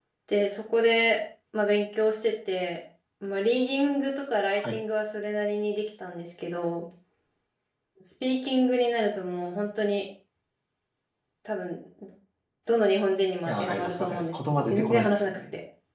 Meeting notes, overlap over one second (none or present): present